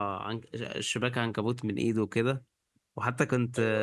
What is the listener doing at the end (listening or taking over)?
listening